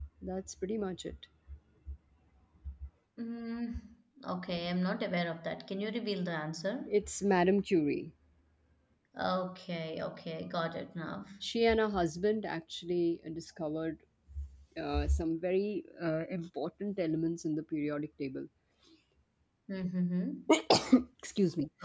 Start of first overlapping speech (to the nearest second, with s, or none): none